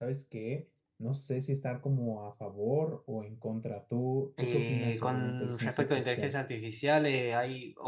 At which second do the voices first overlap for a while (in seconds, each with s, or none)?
4.4 s